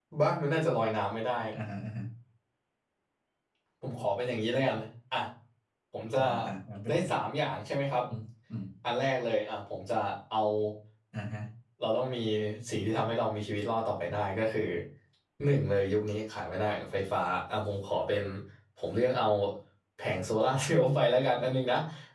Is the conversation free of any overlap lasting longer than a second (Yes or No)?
Yes